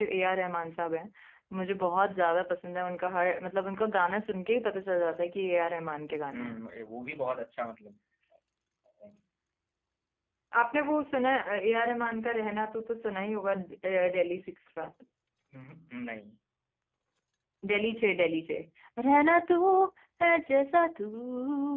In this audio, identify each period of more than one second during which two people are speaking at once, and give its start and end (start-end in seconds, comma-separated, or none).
none